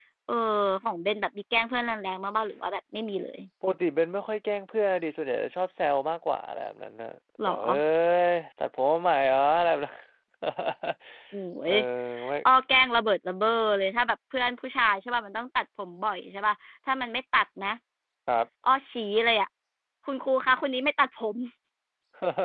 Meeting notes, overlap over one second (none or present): none